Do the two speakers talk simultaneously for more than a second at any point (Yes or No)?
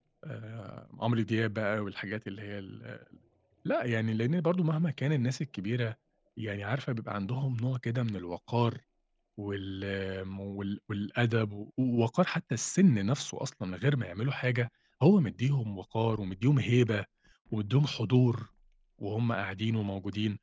No